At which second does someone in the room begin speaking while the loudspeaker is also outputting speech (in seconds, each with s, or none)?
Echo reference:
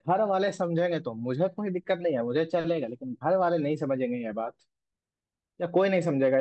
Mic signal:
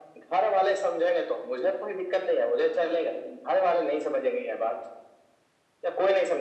none